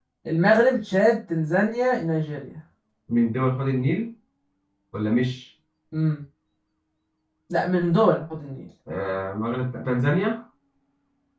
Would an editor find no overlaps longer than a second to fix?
Yes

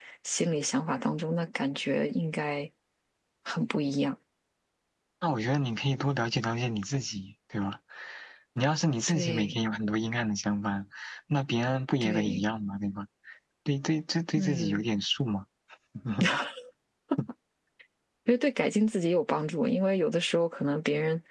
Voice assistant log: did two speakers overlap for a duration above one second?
No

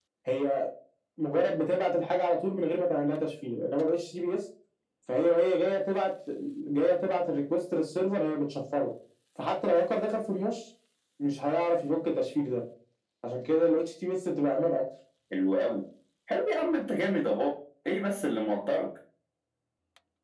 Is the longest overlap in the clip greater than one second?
No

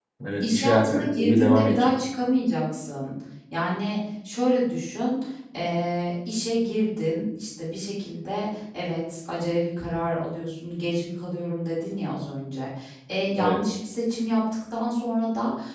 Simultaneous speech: Yes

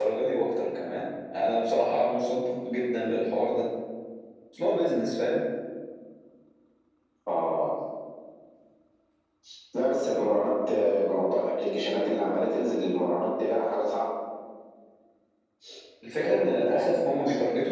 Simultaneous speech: Yes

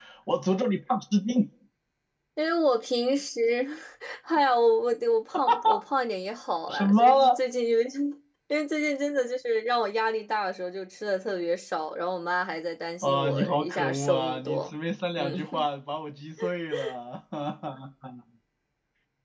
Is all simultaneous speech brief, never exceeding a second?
No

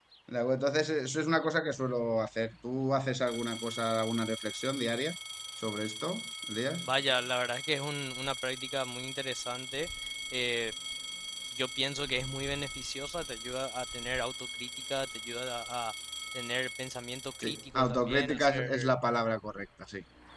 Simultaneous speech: Yes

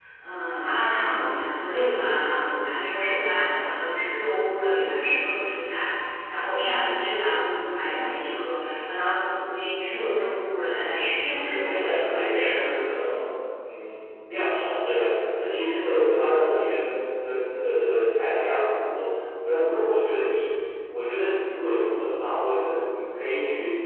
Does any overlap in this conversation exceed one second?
Yes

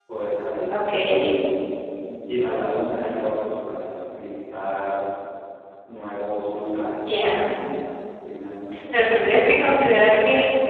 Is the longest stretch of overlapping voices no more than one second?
Yes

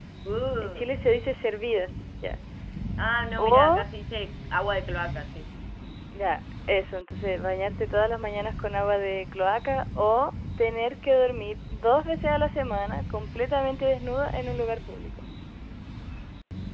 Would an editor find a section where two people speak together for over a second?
No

